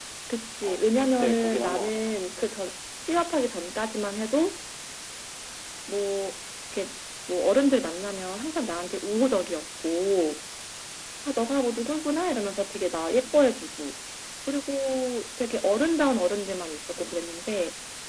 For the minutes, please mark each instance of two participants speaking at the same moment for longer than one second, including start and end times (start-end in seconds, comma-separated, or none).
0.6-2.2